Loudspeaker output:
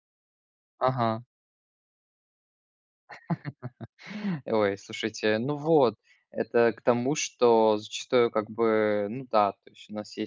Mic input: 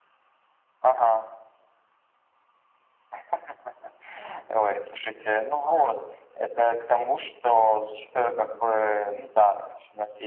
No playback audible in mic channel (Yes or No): No